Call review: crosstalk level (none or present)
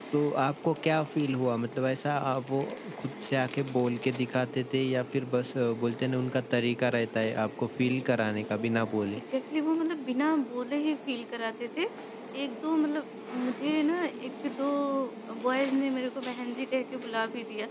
none